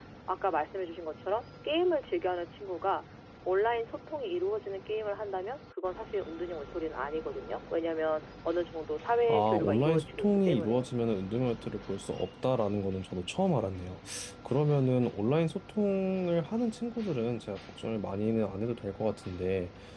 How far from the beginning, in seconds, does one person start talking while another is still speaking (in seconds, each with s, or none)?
9.3 s